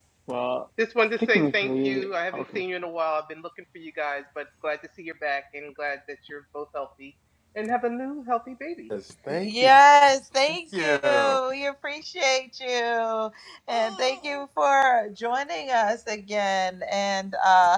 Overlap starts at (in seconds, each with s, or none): 1.2 s